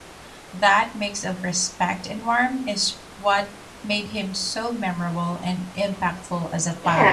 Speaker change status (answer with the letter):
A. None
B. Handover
B